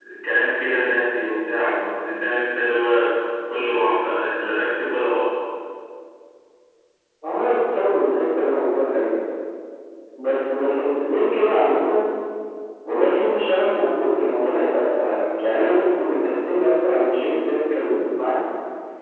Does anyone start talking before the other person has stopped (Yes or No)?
No